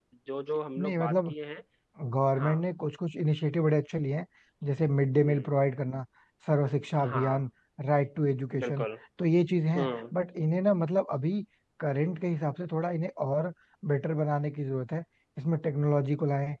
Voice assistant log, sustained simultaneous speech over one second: none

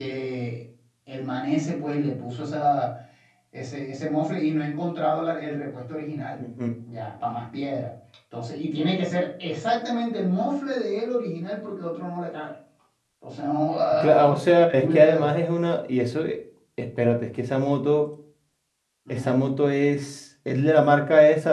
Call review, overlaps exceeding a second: none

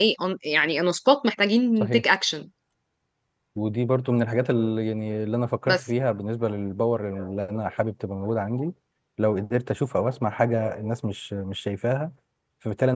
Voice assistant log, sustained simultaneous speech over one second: none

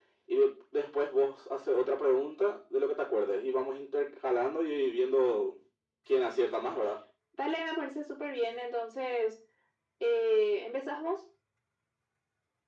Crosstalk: none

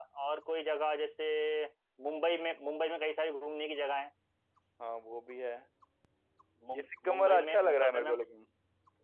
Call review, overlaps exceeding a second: present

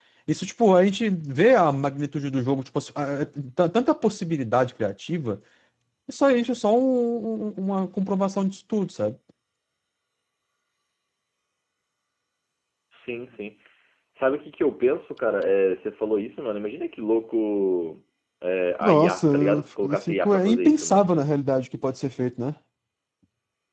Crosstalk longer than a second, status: present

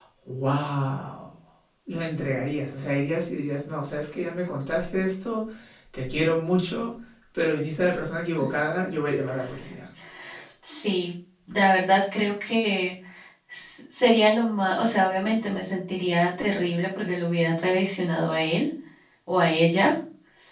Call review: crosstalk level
none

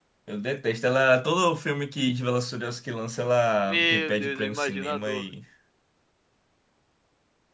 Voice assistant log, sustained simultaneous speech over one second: present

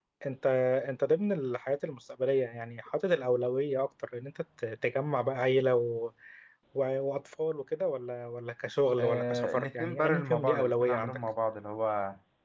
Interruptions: present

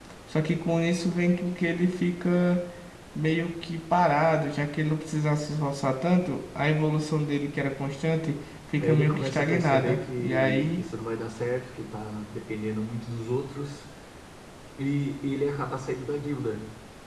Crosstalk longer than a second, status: present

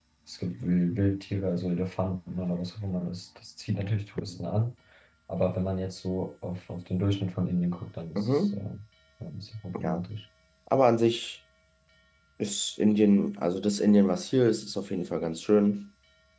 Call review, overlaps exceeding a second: none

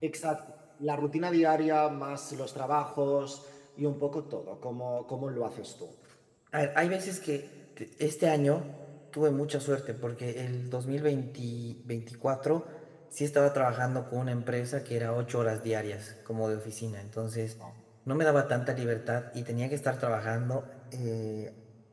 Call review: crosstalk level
none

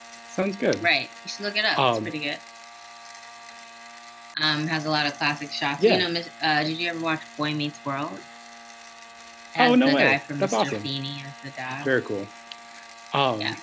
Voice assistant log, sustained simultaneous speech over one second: present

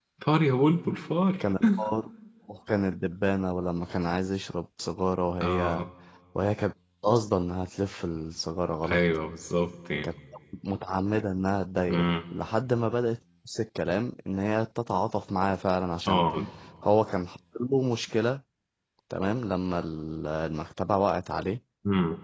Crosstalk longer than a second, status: none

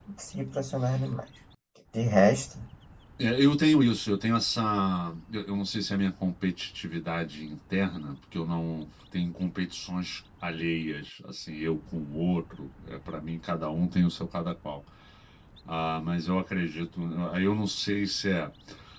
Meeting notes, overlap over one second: none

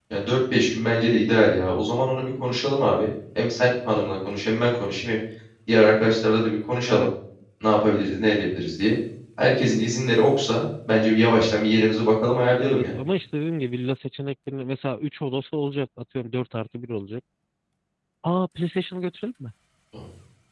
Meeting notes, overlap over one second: none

